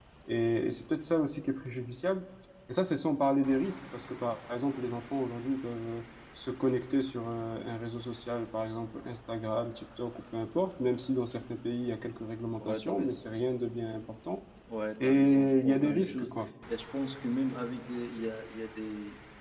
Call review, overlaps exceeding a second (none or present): present